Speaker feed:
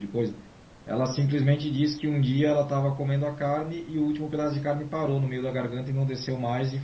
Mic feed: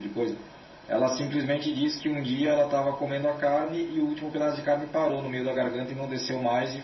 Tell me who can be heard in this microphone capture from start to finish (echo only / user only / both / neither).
echo only